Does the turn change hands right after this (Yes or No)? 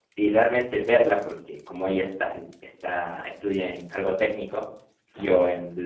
No